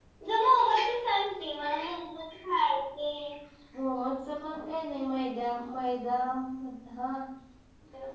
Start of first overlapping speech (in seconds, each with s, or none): none